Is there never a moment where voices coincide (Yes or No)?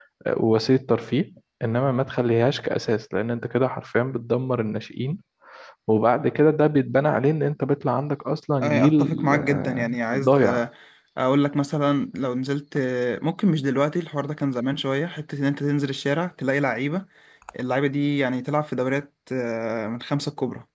No